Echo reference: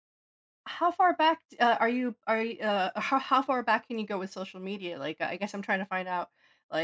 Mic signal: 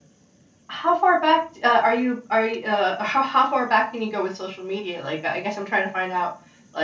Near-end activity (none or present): none